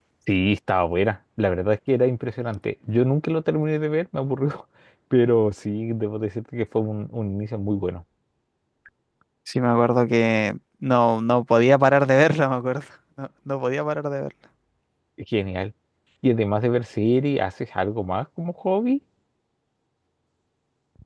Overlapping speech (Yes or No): No